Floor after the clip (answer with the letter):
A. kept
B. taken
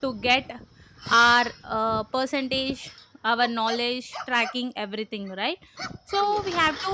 A